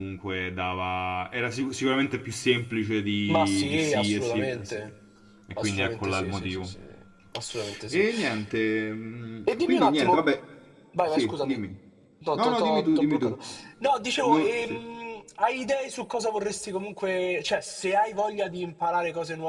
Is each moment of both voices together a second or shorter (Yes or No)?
No